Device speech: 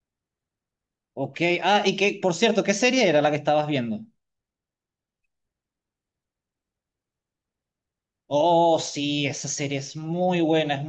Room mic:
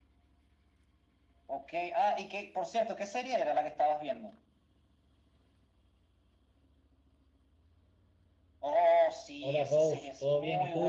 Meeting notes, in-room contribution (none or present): present